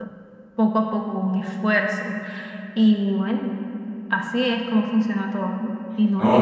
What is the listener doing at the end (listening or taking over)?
taking over